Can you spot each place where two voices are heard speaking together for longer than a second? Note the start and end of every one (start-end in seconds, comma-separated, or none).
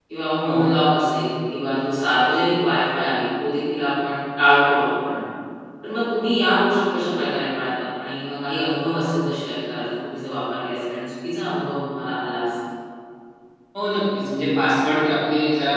none